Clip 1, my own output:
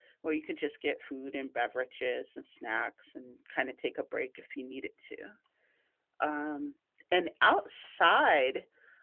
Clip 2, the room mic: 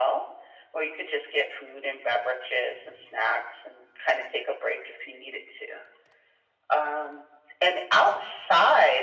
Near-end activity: none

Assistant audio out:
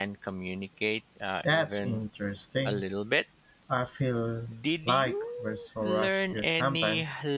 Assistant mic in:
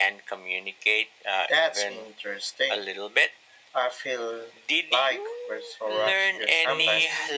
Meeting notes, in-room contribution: present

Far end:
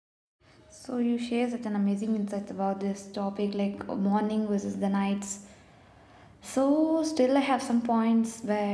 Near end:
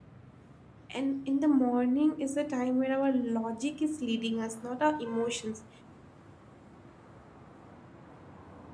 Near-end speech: present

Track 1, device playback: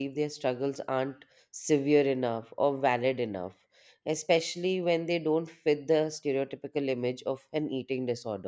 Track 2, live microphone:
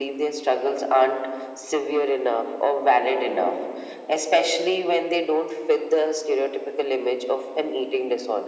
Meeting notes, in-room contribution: none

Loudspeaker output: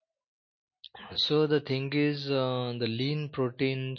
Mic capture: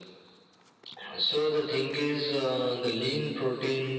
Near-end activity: none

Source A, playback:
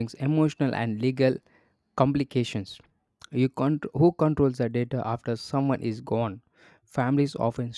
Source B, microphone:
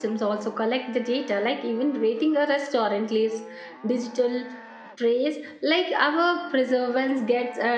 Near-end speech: present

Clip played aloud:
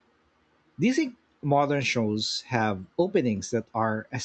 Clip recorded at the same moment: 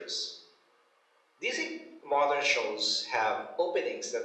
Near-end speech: none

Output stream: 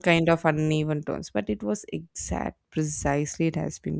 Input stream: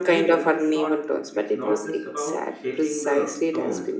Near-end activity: present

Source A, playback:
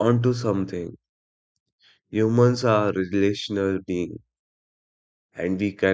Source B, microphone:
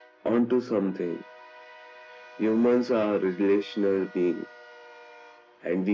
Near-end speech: none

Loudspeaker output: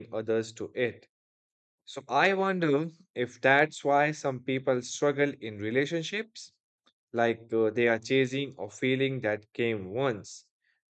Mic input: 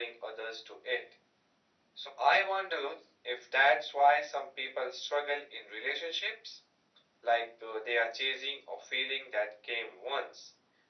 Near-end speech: none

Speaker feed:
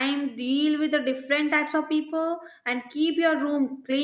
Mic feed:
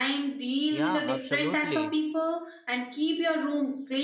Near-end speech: present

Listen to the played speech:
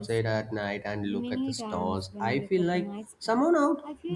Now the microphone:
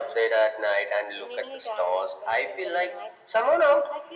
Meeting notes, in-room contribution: none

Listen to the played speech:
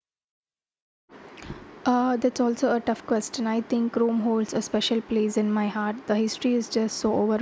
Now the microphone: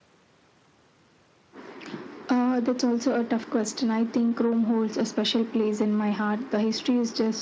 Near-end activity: none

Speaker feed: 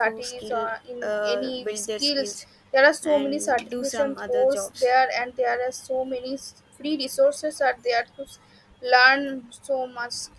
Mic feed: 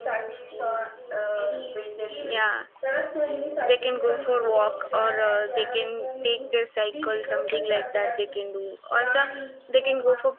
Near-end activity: present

